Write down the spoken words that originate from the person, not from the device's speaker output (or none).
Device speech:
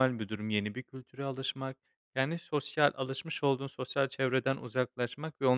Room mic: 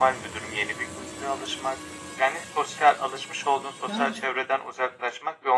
Yani, s